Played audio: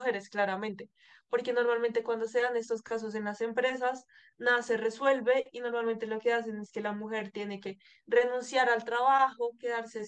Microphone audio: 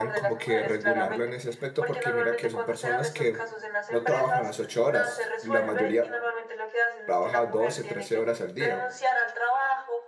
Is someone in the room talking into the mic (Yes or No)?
Yes